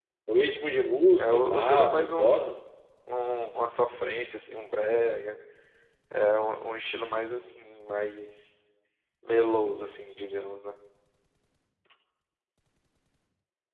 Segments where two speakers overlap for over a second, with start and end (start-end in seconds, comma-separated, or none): 1.2-2.5